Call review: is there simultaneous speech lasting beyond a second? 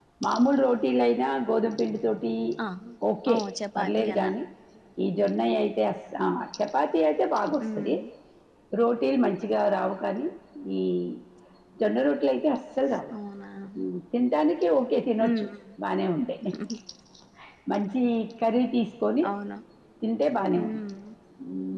No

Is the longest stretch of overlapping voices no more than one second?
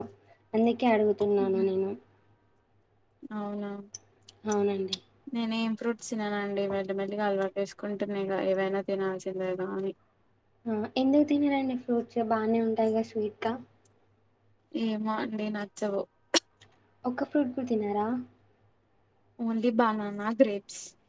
Yes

